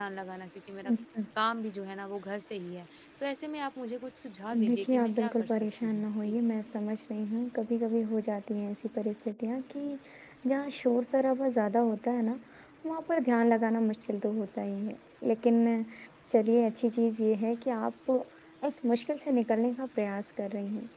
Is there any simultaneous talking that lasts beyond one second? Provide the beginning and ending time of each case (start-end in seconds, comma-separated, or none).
4.5-6.4